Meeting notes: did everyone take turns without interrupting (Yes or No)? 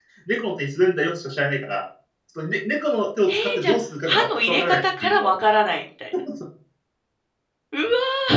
No